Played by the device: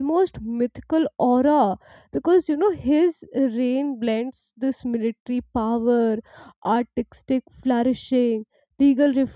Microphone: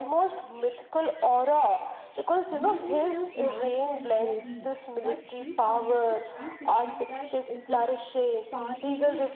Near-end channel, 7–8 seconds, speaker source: both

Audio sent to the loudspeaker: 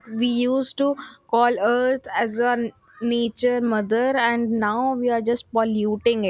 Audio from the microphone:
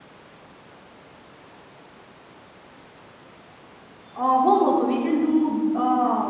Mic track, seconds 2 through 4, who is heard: neither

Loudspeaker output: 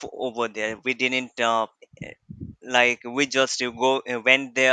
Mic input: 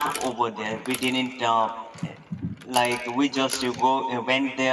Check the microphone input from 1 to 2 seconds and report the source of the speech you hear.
echo only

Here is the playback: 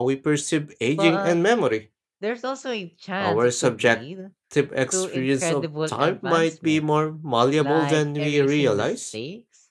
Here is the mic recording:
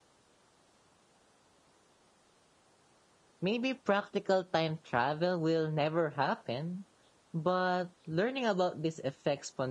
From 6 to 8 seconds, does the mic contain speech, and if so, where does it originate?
user only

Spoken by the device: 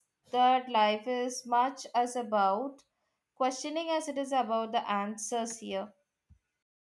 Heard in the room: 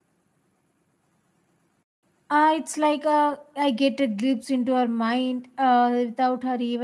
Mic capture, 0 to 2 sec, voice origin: neither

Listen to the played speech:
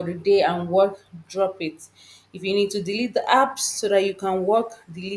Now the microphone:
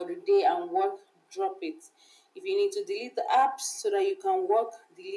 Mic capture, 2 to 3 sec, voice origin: echo only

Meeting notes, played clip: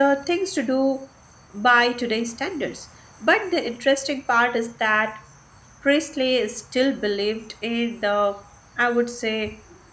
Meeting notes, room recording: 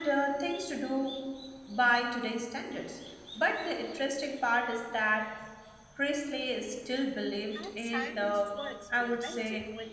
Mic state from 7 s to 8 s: both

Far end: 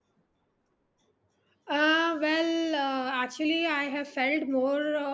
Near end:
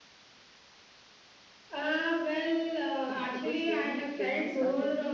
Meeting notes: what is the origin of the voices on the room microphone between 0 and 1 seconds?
neither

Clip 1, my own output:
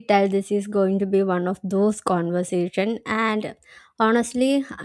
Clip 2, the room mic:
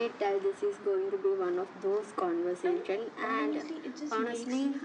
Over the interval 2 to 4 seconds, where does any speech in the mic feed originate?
both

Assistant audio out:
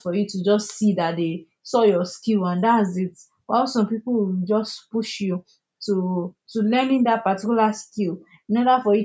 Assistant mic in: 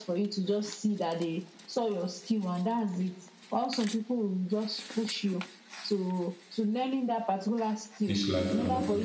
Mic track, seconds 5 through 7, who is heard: echo only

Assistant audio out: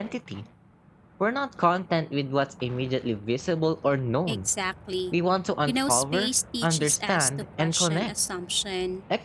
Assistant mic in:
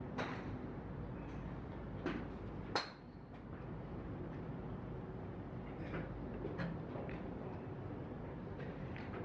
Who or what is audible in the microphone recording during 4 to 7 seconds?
neither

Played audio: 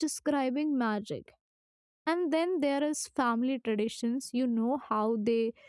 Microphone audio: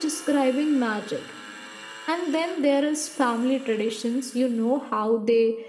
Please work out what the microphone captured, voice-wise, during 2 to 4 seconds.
echo only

